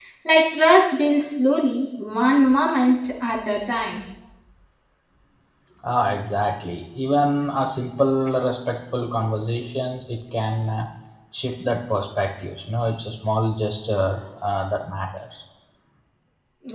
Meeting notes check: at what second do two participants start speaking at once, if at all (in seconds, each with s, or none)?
none